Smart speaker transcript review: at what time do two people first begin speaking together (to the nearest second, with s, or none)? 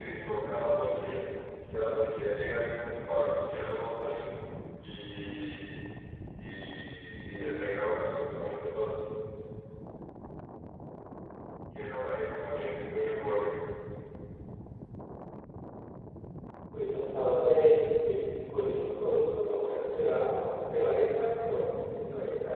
none